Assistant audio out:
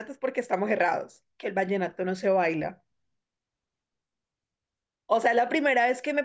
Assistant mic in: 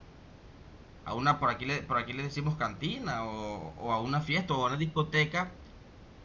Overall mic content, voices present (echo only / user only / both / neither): user only